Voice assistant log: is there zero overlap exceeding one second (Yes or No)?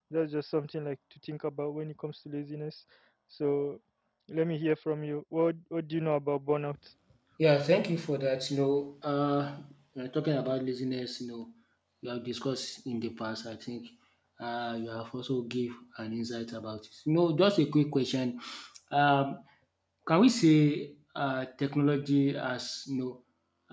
Yes